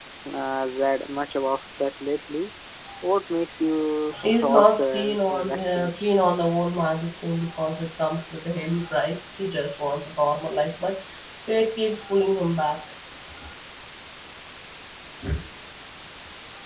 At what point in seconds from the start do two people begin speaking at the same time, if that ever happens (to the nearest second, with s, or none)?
4 s